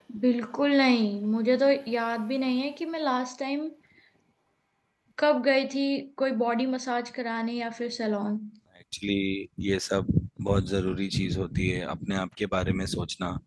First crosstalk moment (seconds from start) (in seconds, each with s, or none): none